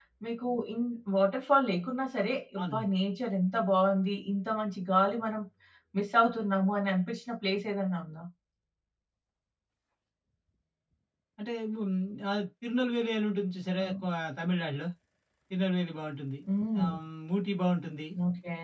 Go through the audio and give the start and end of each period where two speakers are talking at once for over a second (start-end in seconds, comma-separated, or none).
none